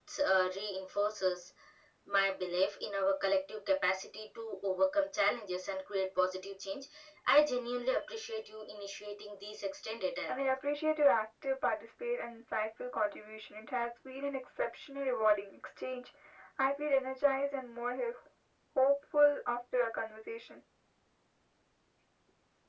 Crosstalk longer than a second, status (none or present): none